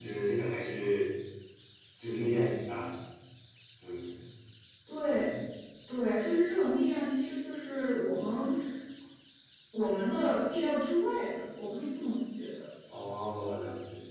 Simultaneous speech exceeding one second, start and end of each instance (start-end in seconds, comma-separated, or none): none